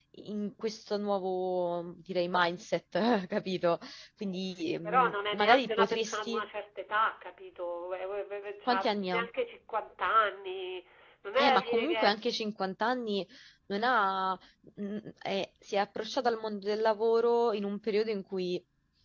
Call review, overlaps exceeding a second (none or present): present